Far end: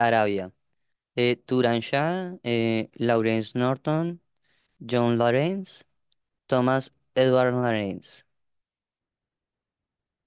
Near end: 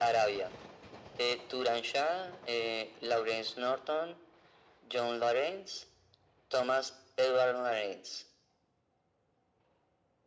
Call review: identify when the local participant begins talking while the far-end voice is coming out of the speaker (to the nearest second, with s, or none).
none